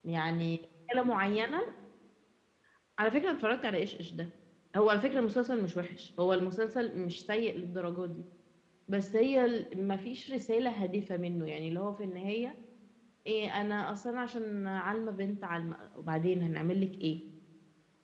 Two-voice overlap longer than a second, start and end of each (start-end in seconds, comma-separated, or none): none